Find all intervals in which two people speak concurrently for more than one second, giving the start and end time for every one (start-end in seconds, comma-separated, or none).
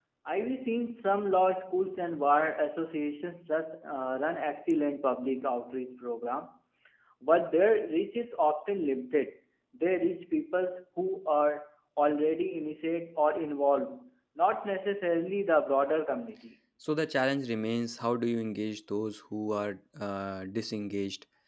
none